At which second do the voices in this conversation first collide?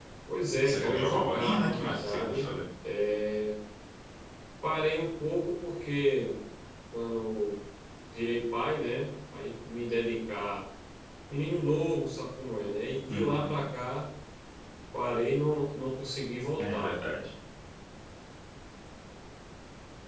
1 s

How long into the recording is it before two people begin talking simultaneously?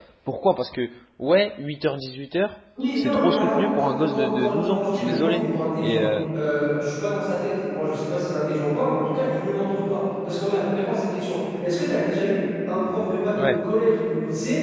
3 s

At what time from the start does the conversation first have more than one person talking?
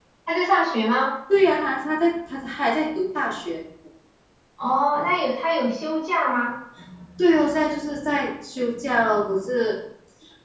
none

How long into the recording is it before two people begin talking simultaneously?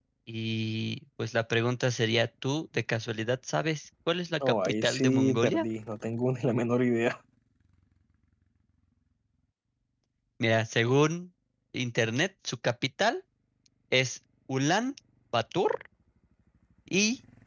4 s

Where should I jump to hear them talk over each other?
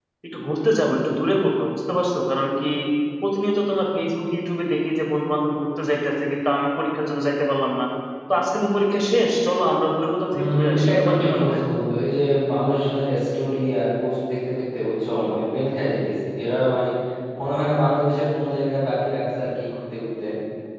10 s

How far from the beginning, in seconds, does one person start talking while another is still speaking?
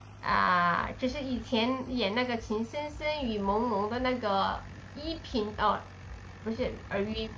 none

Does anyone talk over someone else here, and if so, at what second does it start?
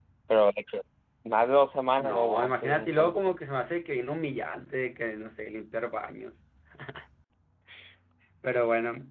2 s

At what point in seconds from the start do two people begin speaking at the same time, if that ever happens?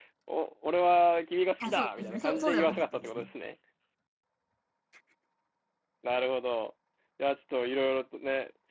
2 s

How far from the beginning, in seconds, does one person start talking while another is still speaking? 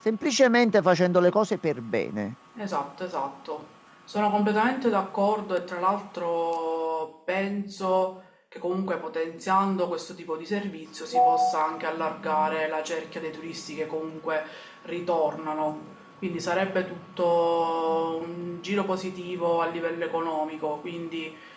none

